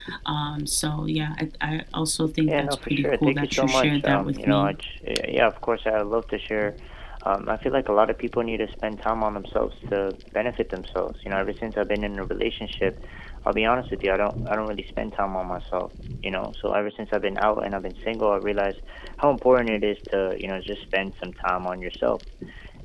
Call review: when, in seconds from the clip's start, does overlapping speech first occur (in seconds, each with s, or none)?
2.5 s